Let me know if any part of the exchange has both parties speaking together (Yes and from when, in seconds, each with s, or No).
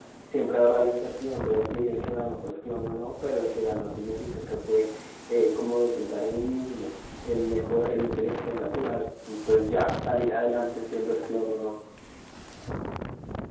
No